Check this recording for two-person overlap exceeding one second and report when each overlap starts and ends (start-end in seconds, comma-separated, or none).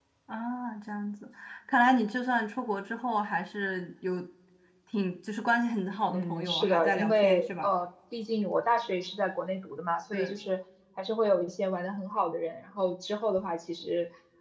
6.1-7.7